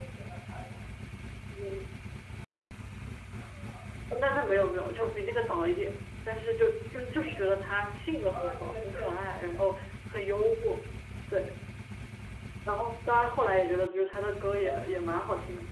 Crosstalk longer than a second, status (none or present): present